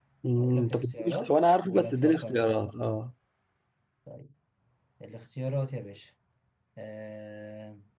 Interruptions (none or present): present